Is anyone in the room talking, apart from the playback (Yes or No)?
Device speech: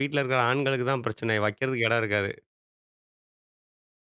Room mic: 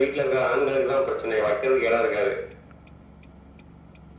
No